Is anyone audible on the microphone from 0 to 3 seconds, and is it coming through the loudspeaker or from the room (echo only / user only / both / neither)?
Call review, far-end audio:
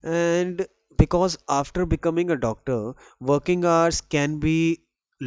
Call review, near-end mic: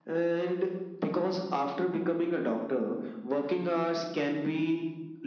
echo only